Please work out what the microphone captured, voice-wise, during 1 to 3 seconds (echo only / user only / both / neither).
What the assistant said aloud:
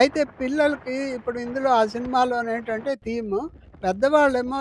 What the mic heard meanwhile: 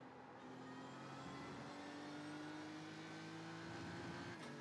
neither